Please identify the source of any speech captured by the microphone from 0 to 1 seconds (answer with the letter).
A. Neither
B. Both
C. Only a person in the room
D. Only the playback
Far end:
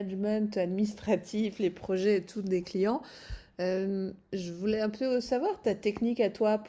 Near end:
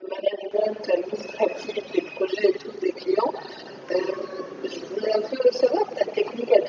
D